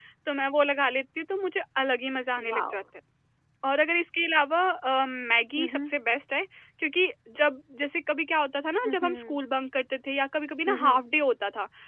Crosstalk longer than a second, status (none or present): none